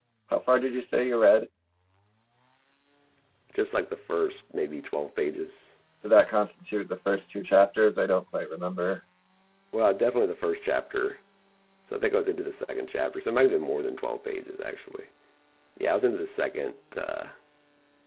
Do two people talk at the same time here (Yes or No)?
No